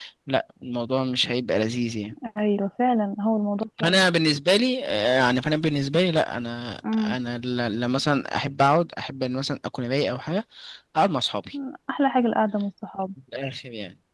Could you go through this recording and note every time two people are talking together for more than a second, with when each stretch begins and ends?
none

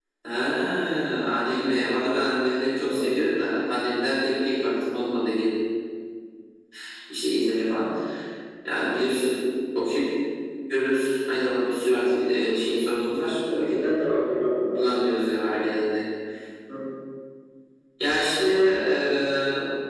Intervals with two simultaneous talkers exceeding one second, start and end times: none

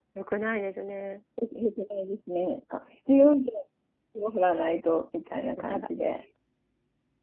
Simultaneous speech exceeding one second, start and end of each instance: none

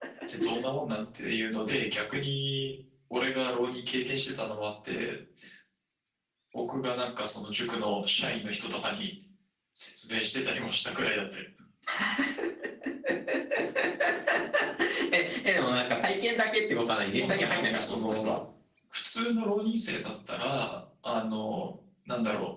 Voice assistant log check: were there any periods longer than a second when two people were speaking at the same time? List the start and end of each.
17.0-18.3

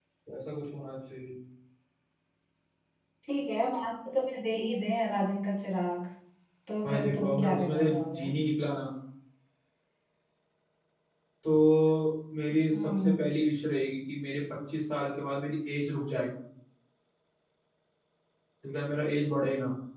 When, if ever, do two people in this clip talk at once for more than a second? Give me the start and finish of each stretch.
6.8-8.2

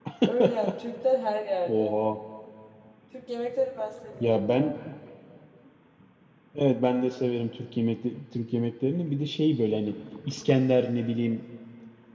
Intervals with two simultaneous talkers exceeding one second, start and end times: none

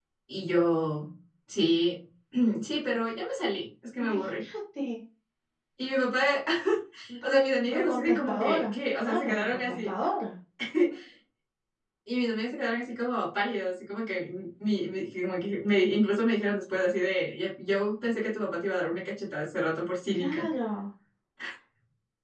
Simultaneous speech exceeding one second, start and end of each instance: 7.2-9.9

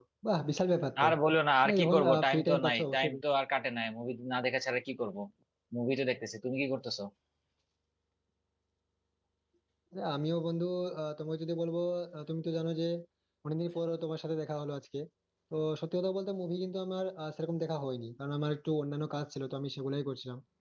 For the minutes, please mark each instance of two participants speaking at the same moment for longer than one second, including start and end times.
1.6-3.2

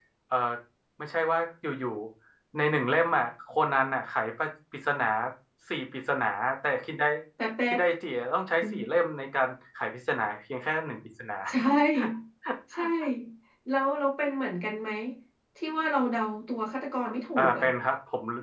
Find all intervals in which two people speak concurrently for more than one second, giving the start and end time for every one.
none

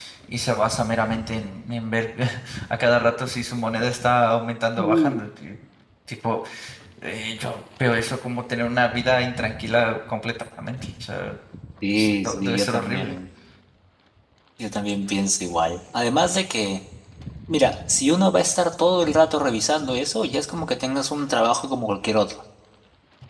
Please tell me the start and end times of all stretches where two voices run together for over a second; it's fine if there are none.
11.9-13.2

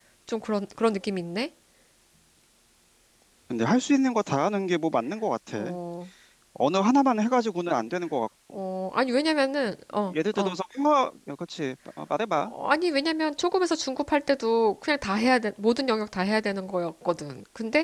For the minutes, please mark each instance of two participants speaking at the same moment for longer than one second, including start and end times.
none

